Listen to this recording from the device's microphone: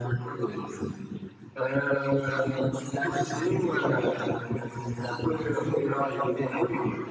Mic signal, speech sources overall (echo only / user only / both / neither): echo only